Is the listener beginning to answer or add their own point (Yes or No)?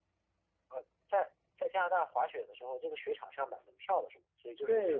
Yes